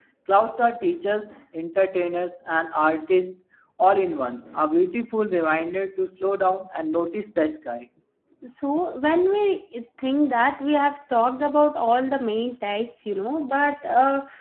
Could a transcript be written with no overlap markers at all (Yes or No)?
Yes